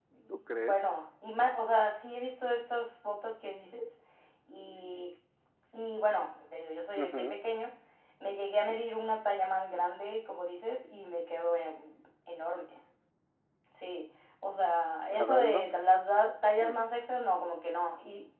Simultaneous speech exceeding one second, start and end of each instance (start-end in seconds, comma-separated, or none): none